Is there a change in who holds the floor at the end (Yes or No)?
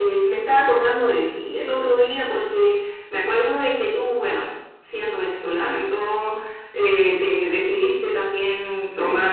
No